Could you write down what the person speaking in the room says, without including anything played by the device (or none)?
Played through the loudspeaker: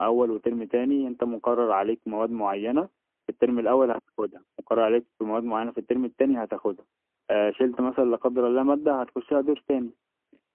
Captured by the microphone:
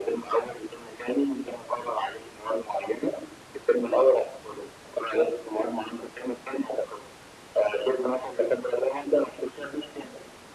none